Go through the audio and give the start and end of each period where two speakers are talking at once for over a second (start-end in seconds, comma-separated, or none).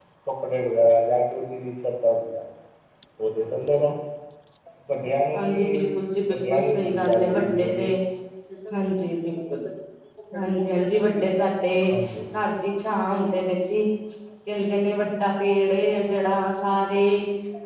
6.3-7.8